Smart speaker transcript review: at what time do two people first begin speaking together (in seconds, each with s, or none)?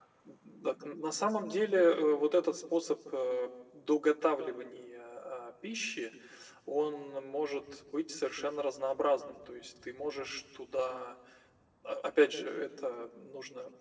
none